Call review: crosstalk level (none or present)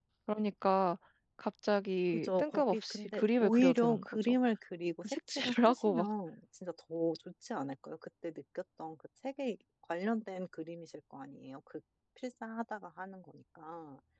present